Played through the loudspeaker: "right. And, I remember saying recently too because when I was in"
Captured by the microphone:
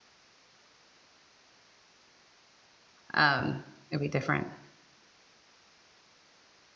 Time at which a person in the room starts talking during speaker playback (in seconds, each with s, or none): 3.1 s